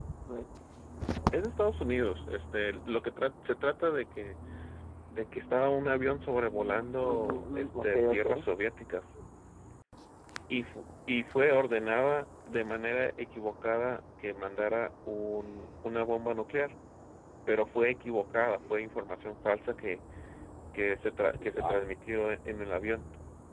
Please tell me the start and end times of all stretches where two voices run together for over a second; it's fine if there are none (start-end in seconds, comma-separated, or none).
7.0-8.2